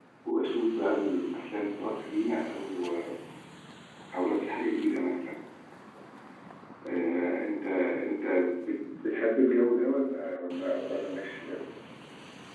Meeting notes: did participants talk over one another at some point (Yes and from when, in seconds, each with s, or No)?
No